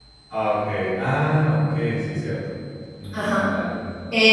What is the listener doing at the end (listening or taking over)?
taking over